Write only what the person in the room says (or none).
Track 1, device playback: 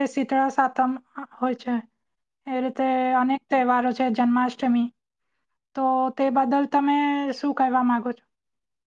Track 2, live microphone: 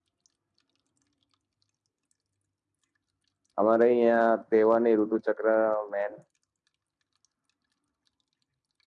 અમારે અહં તહેવાર ની ઋતુ ચક્ર મેન